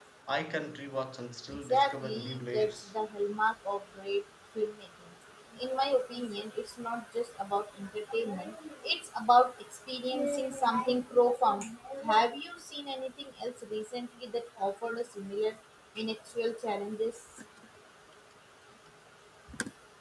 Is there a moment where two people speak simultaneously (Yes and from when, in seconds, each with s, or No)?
Yes, from 1.5 s